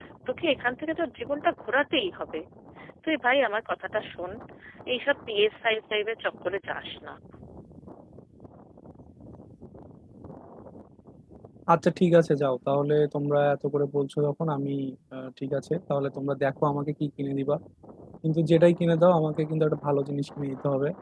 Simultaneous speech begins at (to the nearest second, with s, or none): none